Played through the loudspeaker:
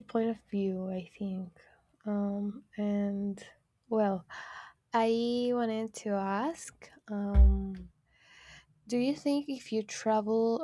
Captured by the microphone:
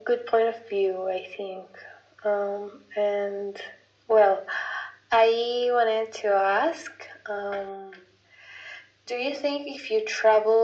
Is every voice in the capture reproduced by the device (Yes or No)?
Yes